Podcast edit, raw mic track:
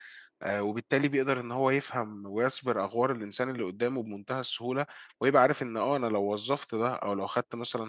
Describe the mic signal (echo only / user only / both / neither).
user only